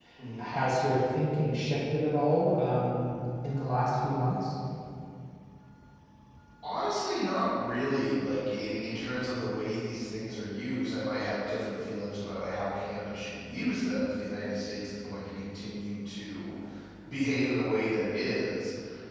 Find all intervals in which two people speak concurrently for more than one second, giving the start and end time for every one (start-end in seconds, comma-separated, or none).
none